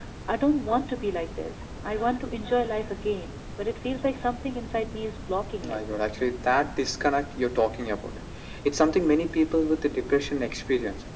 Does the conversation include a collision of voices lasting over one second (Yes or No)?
No